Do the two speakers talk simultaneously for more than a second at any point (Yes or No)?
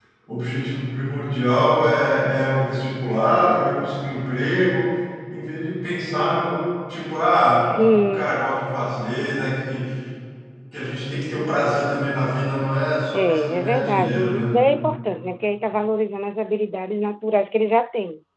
Yes